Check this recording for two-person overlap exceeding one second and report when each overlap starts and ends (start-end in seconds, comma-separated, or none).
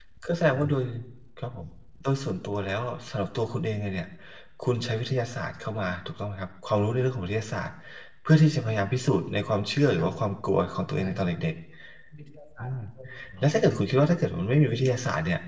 none